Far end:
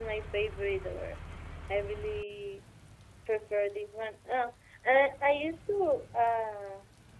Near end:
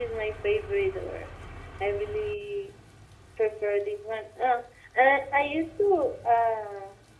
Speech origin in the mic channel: echo only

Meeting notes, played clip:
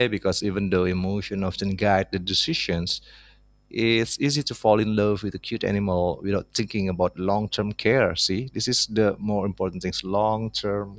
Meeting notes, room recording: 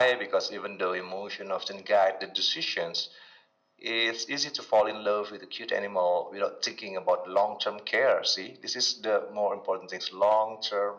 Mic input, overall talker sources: echo only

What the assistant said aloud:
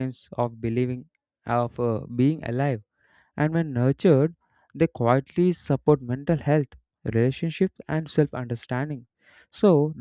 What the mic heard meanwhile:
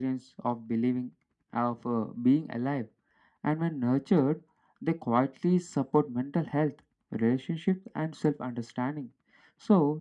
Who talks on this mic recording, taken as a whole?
echo only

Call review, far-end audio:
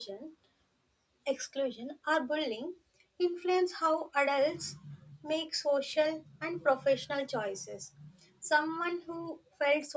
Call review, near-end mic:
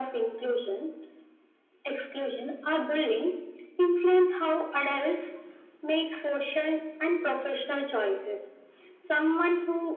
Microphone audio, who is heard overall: echo only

